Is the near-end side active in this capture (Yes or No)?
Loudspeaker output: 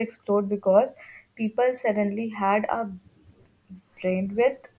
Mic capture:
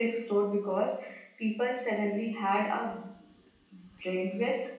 No